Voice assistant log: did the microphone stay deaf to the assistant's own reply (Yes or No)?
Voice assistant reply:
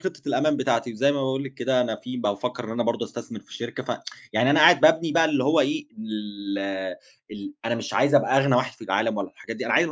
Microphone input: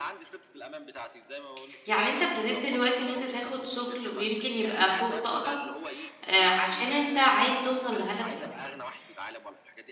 No